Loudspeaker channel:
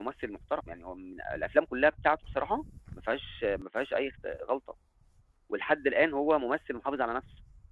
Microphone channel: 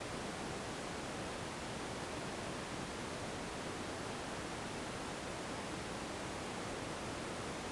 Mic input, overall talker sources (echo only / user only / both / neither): neither